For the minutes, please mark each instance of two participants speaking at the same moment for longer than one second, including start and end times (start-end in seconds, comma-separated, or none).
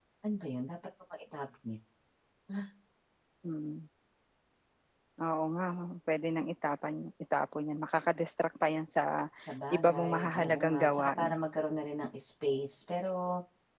9.7-11.4